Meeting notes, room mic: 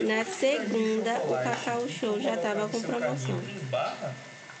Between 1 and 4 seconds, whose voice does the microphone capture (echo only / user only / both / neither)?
both